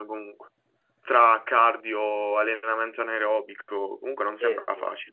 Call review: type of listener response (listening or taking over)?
taking over